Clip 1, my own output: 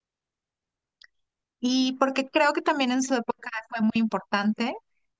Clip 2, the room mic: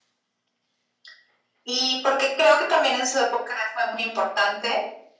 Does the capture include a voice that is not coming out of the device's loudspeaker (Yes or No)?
No